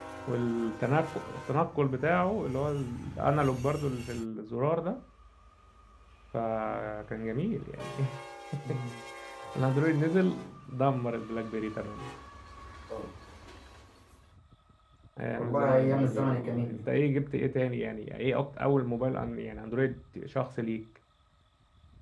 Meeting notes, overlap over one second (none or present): present